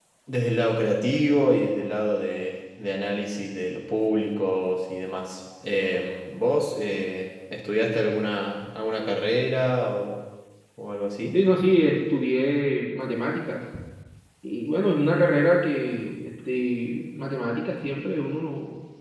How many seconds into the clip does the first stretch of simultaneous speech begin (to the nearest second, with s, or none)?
none